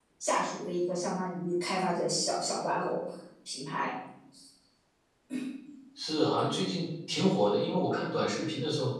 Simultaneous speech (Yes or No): No